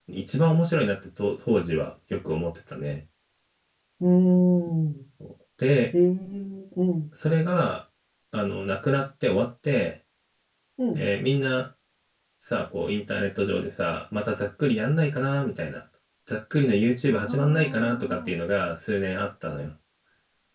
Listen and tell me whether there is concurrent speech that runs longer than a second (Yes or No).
Yes